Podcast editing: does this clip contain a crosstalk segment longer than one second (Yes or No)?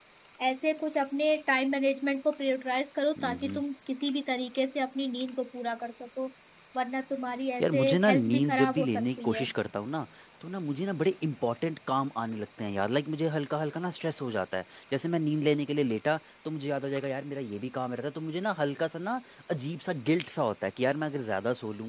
Yes